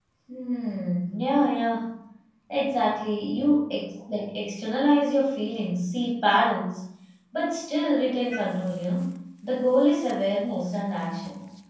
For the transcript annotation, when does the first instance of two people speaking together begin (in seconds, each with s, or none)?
none